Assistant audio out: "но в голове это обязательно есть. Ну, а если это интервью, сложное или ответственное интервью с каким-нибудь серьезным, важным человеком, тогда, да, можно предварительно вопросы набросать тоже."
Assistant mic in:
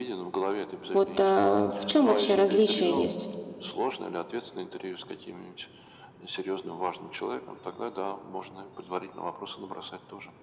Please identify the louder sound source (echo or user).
user